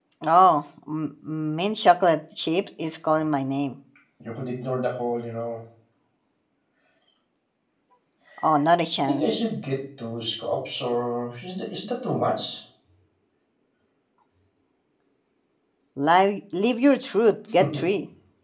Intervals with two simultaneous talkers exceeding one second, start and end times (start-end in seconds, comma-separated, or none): none